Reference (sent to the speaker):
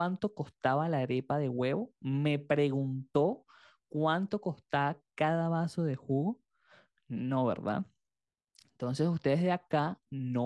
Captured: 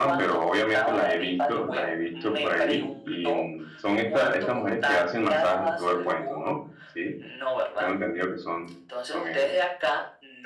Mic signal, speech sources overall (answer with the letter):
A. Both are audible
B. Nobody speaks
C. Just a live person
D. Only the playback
A